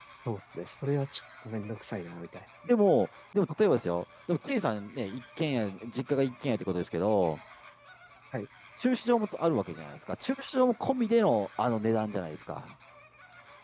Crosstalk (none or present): none